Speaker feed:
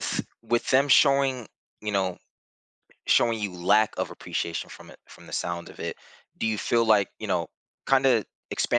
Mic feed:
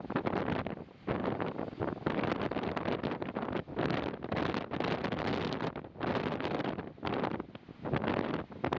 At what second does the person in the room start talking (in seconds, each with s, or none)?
none